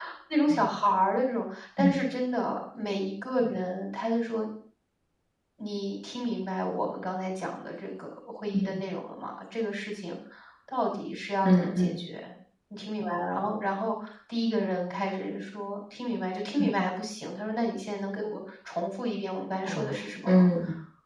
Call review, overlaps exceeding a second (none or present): none